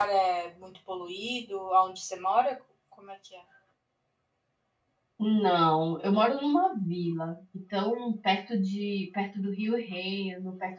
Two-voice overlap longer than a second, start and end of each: none

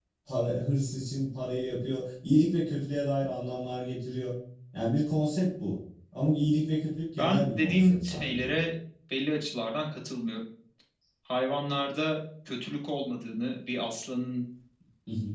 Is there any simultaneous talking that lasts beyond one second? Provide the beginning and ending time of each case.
7.2-8.5

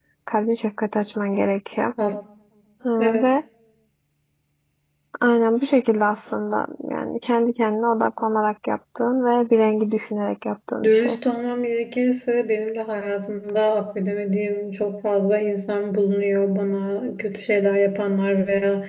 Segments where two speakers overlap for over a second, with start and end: none

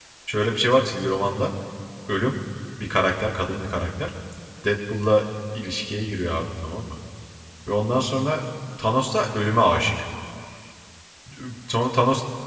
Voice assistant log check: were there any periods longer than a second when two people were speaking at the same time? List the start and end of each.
none

